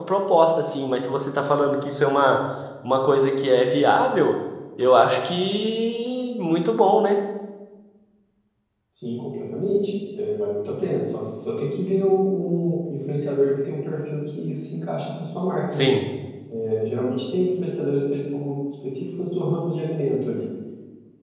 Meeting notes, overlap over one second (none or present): none